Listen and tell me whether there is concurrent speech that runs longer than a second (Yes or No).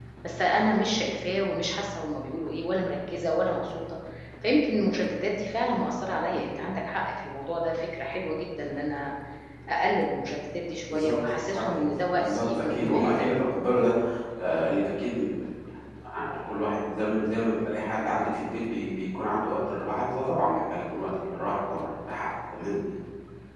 Yes